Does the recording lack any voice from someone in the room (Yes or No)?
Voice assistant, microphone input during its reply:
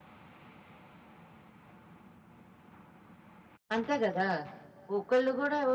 No